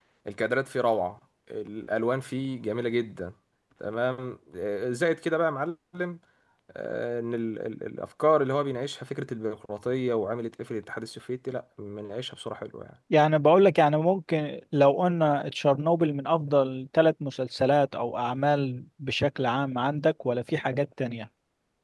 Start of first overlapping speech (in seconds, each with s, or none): none